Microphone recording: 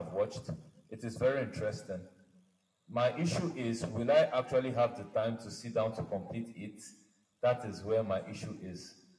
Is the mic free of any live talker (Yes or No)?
Yes